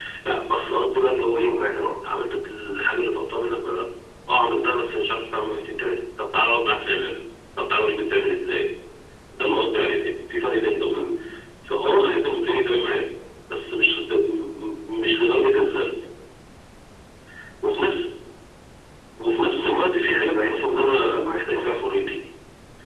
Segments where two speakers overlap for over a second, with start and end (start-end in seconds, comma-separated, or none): 20.3-21.6